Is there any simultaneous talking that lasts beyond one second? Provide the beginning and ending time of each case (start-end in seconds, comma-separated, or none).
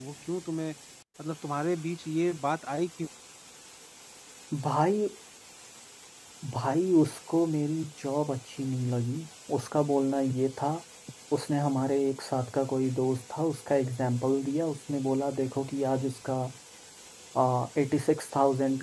none